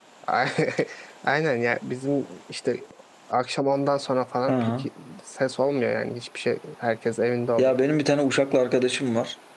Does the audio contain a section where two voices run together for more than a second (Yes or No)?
No